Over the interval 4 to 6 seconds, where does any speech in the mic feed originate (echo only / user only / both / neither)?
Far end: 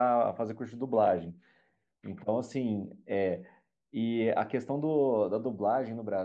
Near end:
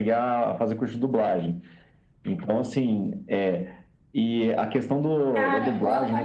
both